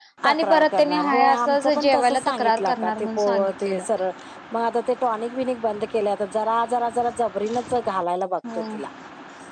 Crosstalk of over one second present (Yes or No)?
Yes